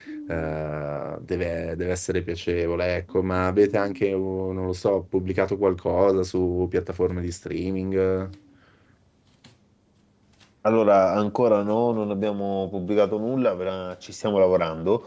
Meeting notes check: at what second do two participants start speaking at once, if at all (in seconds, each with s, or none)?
none